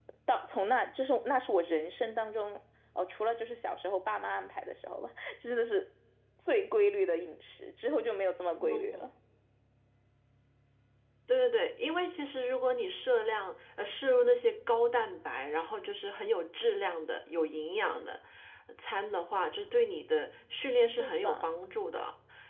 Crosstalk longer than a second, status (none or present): none